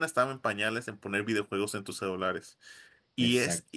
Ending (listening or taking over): listening